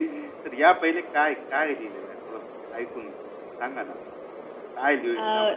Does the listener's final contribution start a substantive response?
No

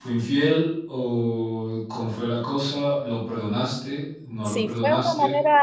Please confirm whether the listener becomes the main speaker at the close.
Yes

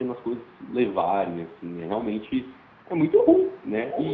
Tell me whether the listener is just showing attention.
No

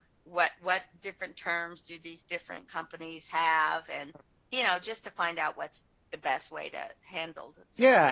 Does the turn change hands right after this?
Yes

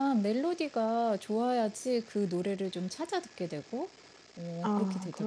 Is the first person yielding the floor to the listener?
Yes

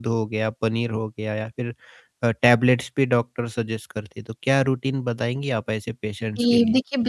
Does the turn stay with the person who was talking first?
No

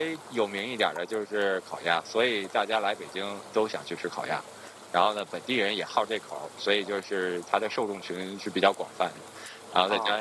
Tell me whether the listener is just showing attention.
Yes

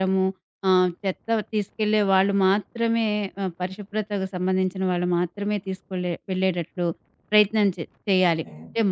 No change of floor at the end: Yes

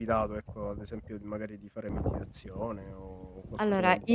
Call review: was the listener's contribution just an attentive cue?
No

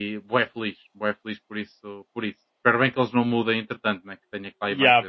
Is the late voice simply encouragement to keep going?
No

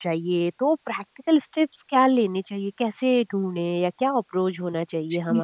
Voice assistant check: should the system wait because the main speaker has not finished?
No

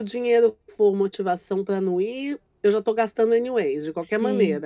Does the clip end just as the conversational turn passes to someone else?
Yes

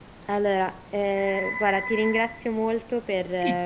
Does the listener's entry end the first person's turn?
No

